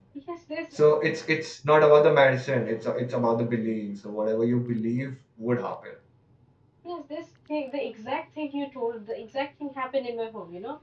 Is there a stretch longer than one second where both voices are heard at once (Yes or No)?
No